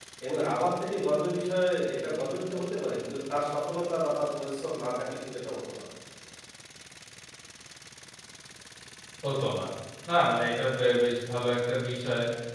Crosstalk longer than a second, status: none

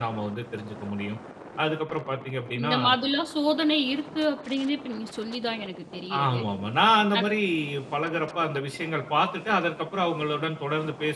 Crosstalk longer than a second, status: none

